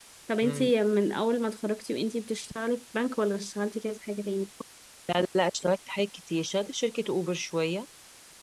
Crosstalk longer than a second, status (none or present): none